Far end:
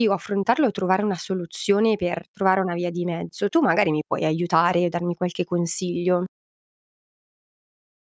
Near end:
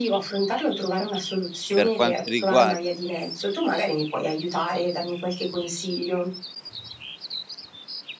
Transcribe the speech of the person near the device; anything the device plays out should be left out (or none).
Per quanto riguar